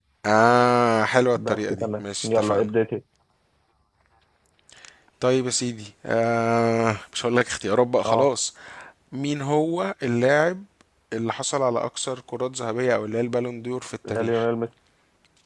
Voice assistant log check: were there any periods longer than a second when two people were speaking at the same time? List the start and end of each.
1.4-2.6

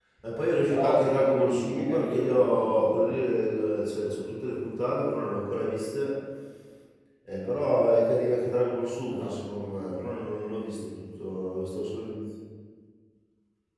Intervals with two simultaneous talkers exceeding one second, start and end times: 0.7-3.3

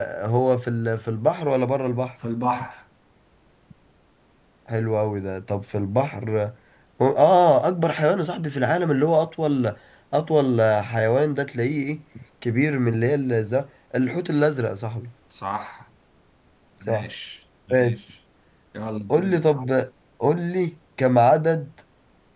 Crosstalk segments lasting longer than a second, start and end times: none

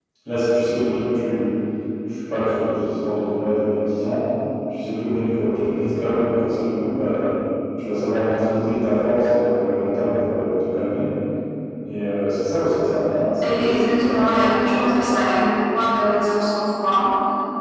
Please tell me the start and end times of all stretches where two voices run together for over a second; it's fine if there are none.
13.5-15.1

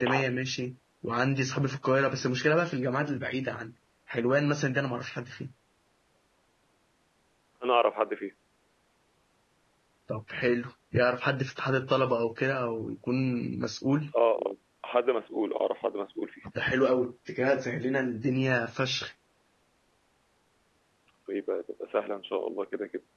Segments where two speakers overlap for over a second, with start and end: none

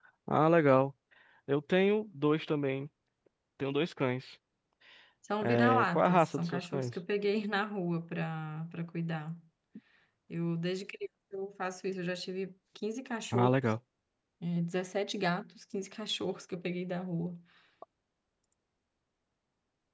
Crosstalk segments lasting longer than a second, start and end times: 5.4-6.9

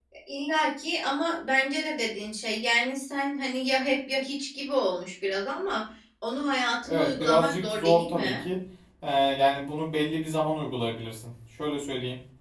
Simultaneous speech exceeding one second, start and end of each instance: 6.8-8.4

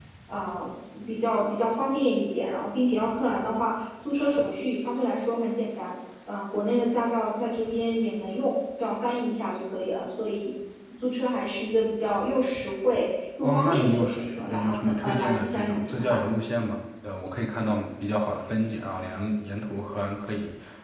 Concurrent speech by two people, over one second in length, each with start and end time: 13.4-16.2

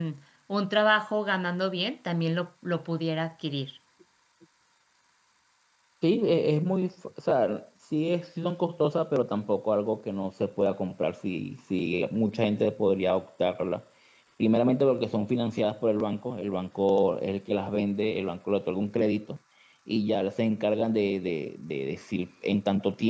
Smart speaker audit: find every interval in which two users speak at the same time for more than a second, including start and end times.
none

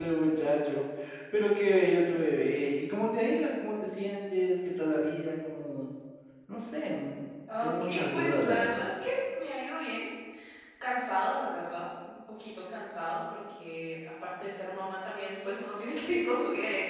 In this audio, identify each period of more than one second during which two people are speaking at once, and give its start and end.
7.6-8.8

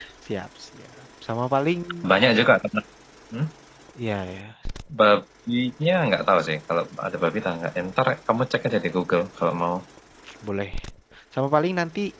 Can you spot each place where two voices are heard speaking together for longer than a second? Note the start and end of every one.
none

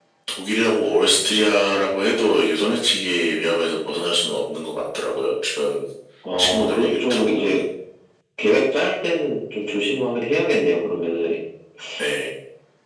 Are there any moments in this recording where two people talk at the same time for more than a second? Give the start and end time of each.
6.4-7.6

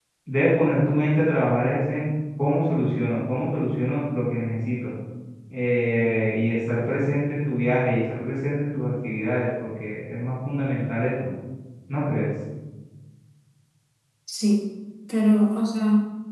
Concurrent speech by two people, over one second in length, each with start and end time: none

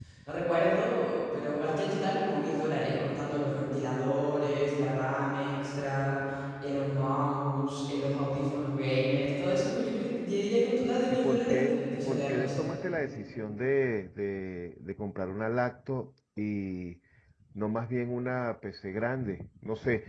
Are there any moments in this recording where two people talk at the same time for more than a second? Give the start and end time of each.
11.1-12.6

